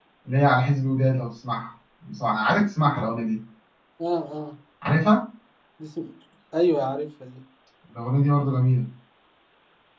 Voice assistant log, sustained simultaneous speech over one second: none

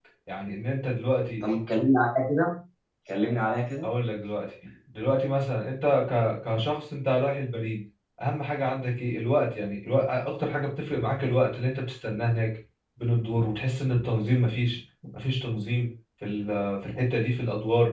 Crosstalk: none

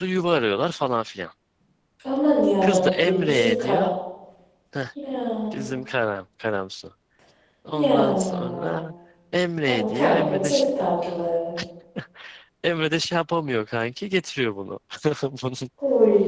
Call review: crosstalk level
present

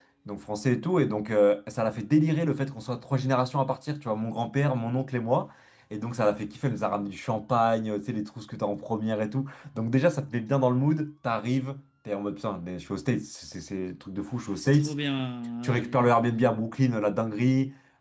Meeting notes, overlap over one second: none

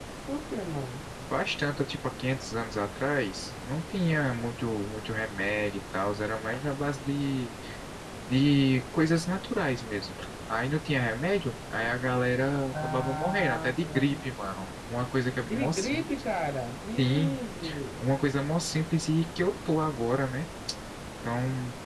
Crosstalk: present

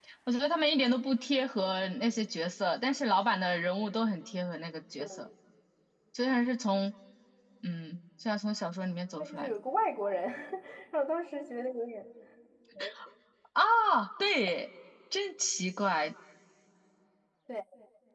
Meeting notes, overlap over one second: none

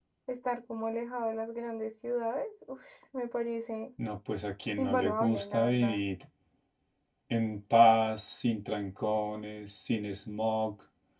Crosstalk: present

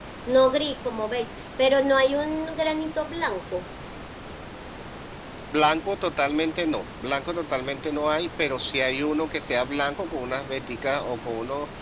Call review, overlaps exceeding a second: none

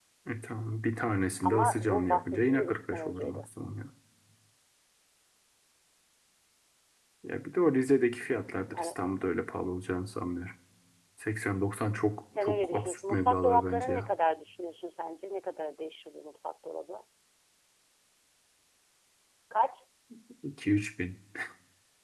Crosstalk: present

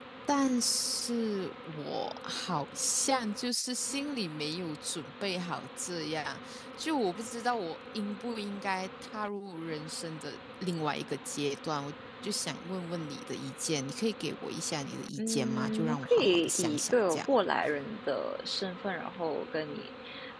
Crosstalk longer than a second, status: present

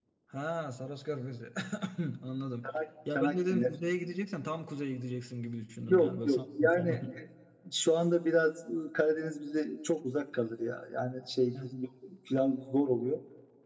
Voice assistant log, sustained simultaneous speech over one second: present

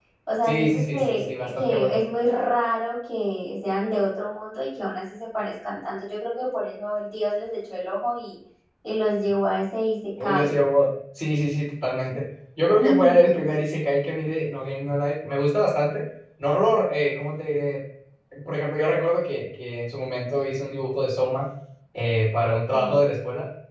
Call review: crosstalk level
present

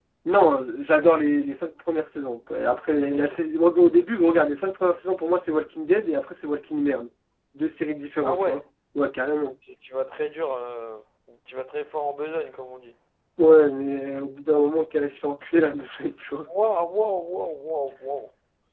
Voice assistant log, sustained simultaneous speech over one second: none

